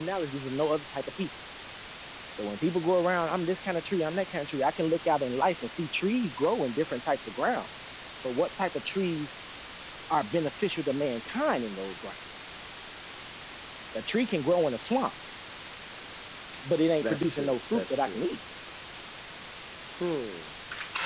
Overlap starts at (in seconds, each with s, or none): 17.0 s